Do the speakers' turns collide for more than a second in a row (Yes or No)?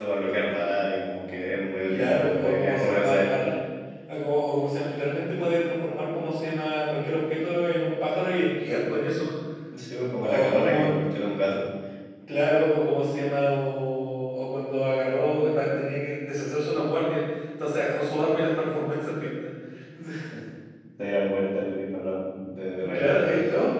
Yes